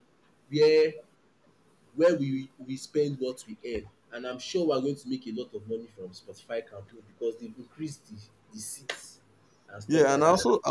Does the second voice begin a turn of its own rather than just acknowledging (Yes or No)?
Yes